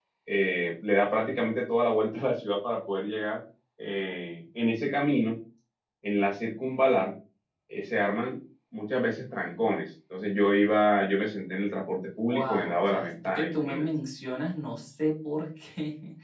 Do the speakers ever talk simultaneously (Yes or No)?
Yes